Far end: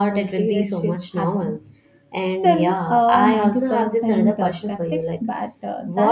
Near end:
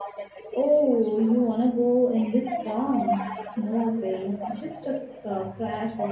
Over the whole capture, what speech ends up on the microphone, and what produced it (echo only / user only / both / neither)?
both